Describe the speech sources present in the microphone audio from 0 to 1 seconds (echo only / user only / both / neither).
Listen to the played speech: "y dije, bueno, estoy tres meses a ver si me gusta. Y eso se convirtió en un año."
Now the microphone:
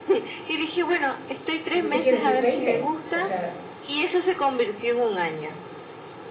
echo only